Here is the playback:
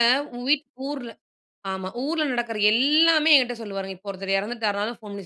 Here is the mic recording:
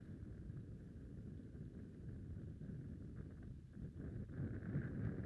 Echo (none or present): none